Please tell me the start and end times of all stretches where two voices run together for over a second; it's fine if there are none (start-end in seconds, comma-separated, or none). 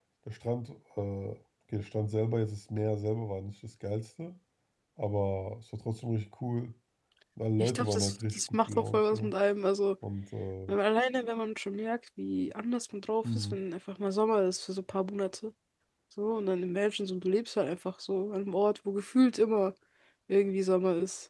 7.6-9.3